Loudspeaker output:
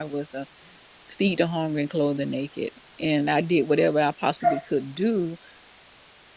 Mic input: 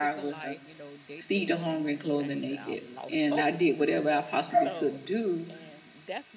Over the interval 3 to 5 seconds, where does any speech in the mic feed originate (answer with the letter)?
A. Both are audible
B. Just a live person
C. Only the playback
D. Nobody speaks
A